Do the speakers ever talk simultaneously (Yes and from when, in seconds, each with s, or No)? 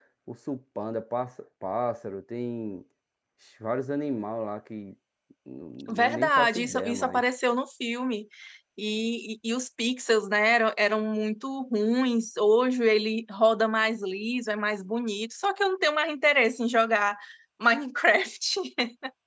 Yes, from 5.9 s